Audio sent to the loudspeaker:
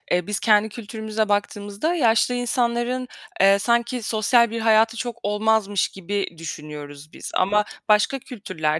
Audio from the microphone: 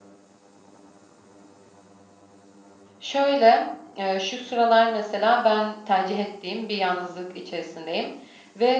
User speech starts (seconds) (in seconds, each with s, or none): 3.0 s